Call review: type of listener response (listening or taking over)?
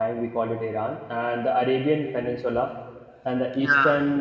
listening